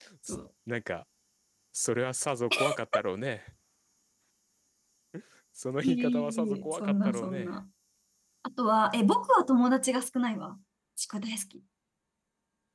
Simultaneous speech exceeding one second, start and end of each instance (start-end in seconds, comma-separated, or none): 5.8-7.5